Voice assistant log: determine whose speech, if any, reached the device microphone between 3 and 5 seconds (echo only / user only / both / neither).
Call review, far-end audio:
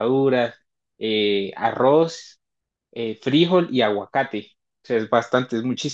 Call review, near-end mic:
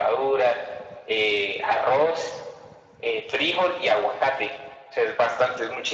echo only